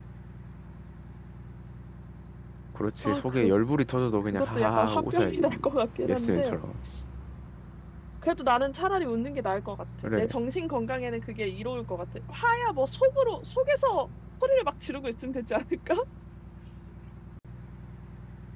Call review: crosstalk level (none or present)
present